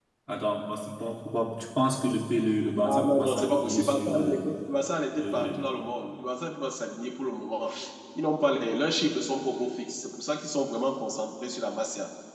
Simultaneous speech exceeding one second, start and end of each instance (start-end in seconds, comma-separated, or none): 2.8-4.5